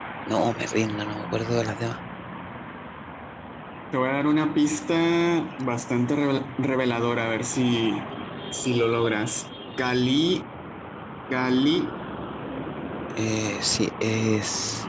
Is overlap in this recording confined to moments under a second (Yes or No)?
Yes